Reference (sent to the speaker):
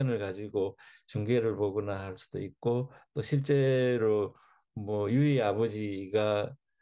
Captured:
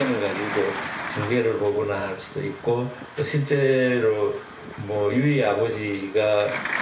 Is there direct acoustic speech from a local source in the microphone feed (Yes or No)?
No